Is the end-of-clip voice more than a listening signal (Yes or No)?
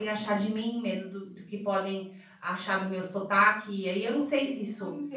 Yes